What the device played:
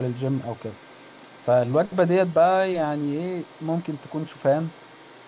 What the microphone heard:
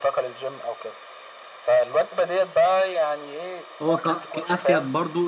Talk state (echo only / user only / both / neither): both